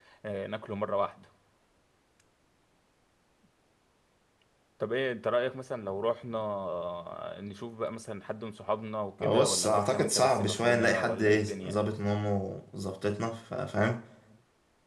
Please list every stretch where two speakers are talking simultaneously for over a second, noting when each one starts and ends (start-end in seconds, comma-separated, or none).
9.2-11.9